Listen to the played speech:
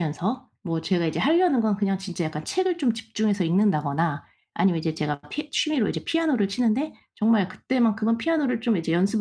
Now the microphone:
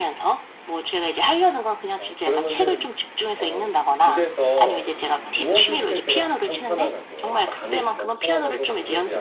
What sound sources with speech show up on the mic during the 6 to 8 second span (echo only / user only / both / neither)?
both